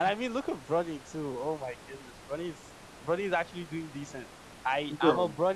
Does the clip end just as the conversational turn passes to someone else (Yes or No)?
No